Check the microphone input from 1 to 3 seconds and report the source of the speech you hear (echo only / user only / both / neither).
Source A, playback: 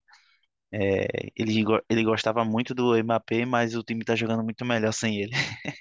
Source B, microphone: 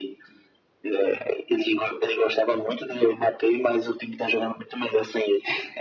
echo only